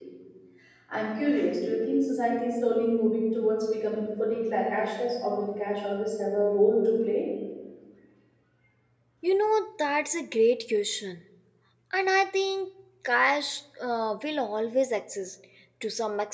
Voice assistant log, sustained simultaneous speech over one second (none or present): none